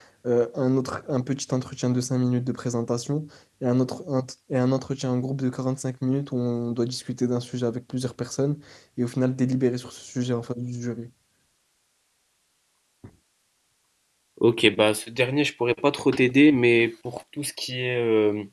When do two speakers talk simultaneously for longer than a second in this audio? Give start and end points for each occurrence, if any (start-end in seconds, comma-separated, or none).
none